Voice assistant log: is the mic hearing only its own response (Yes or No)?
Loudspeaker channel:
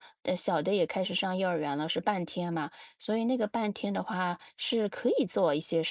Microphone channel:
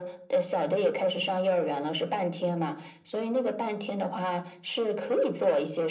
Yes